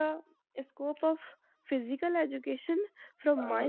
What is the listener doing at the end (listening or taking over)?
listening